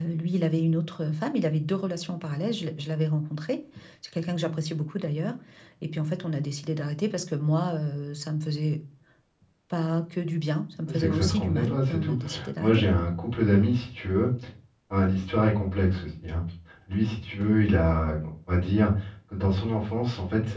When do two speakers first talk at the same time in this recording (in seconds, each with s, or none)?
10.9 s